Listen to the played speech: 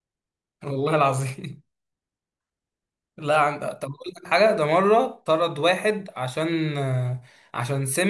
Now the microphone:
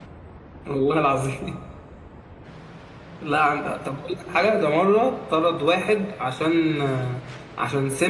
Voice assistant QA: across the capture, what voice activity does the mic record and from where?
echo only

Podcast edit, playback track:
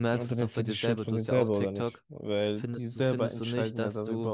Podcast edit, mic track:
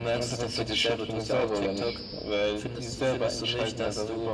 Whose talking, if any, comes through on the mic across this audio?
echo only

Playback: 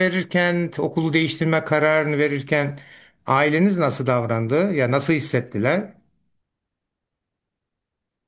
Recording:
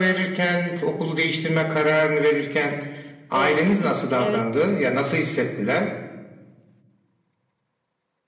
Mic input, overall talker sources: both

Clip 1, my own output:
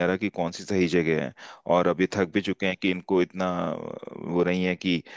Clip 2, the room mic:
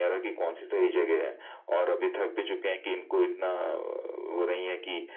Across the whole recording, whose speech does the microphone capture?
echo only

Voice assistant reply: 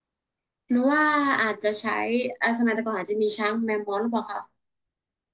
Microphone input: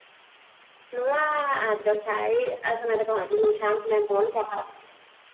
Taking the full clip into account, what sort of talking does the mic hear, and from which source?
echo only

